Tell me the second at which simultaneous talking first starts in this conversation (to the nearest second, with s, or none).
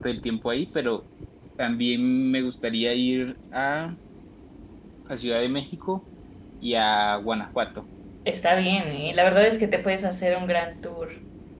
none